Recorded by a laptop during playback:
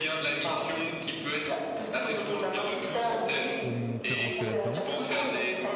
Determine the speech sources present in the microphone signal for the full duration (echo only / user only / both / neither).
both